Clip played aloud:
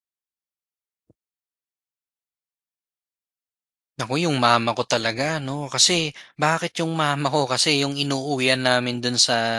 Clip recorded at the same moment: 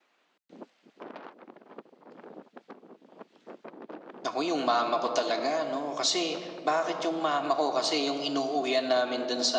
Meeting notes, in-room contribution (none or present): none